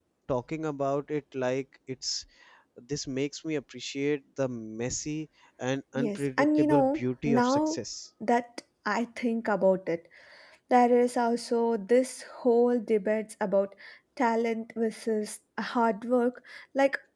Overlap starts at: 6 s

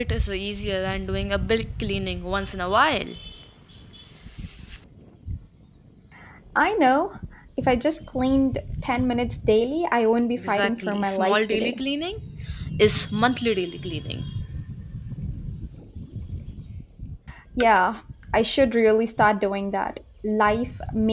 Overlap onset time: 10 s

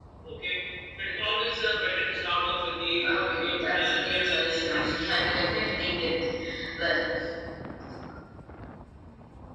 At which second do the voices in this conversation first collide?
3 s

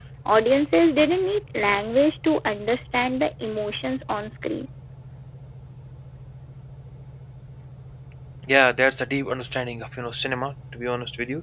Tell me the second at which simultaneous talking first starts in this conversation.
none

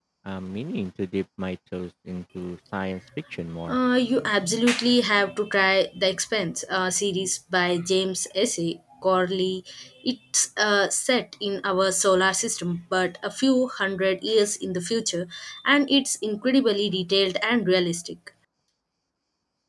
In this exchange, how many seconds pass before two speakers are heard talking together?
none

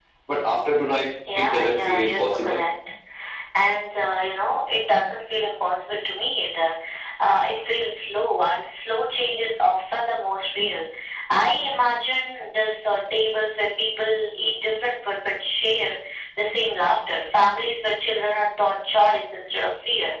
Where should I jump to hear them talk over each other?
1 s

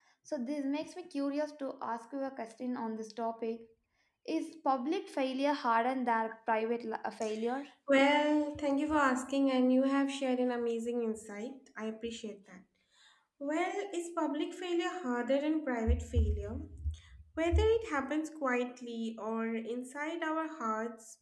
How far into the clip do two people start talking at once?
none

